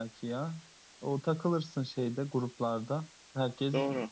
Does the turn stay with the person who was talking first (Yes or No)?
Yes